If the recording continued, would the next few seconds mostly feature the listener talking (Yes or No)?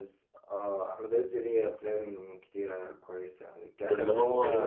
No